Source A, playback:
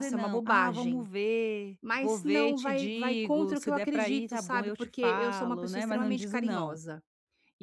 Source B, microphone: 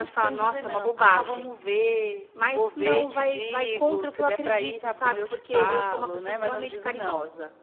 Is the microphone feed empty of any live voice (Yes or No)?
Yes